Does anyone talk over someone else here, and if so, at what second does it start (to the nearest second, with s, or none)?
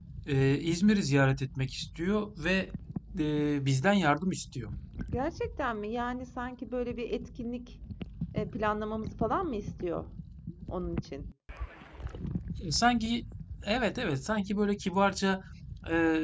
none